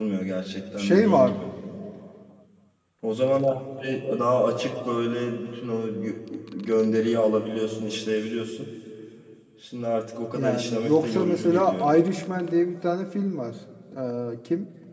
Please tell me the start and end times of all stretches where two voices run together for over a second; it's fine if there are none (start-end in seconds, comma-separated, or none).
10.4-11.9